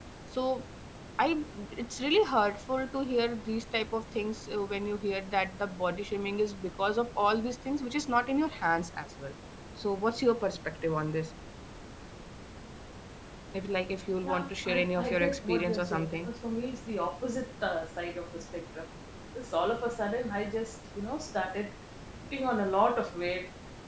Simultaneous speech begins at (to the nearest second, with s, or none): 14 s